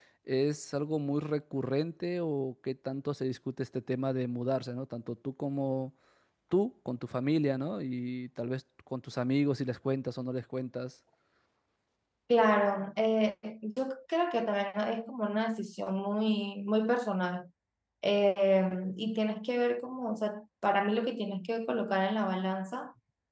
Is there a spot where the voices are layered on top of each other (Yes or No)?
No